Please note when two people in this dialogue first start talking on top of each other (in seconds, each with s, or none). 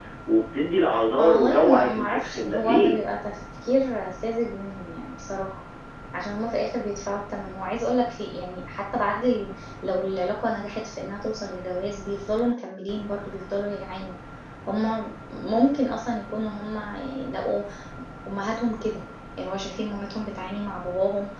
1.2 s